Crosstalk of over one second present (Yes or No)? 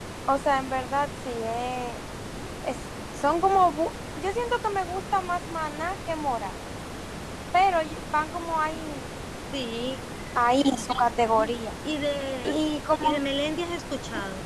No